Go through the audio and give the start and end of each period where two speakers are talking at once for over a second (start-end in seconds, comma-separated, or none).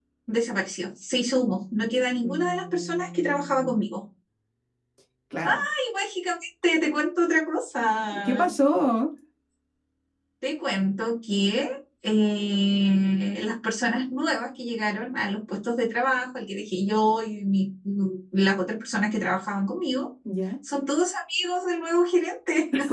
2.2-3.8